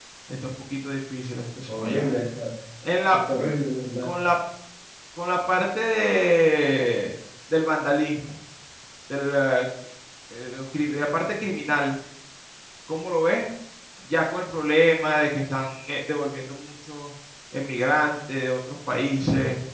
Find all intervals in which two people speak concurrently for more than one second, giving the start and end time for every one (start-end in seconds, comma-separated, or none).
none